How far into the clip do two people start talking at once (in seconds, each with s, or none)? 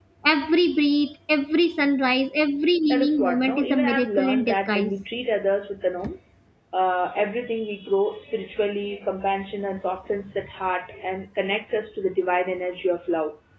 2.9 s